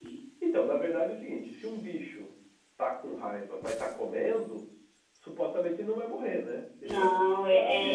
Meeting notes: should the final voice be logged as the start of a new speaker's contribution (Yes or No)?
Yes